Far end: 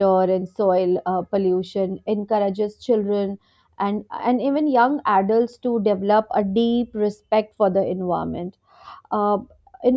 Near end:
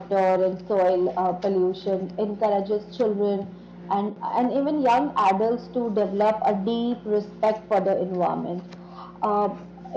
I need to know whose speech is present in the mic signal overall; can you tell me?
echo only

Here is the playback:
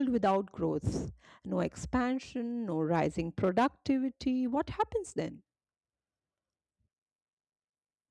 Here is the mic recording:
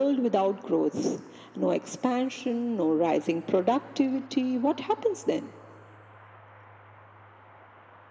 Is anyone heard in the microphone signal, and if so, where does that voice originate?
echo only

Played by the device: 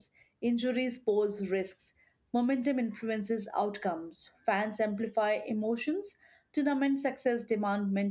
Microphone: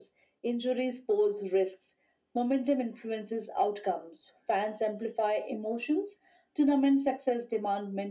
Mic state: echo only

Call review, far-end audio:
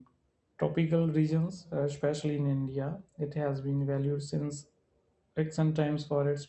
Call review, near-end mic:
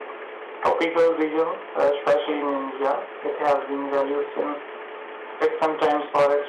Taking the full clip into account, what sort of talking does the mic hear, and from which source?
echo only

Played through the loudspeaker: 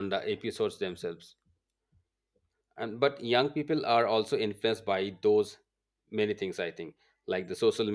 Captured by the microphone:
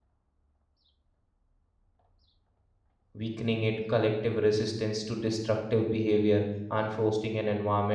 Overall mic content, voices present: user only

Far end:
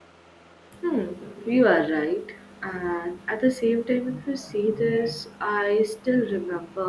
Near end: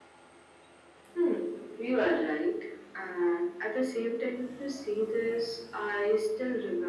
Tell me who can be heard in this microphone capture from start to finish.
echo only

